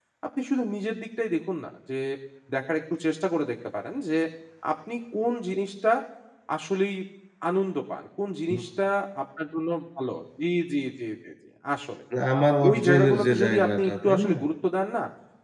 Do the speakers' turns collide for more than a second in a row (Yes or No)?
Yes